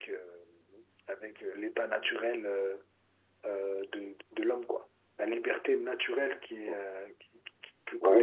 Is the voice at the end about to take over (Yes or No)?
Yes